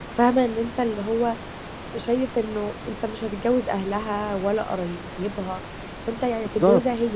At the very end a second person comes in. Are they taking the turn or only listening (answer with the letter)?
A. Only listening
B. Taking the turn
A